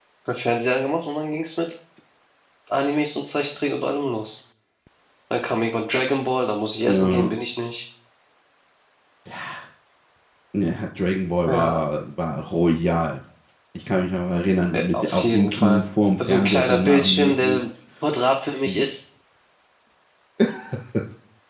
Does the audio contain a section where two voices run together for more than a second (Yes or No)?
Yes